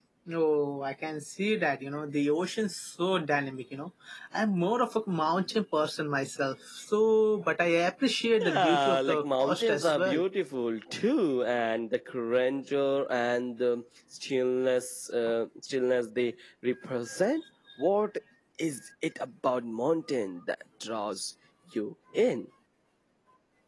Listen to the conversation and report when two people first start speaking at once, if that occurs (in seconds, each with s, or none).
8.4 s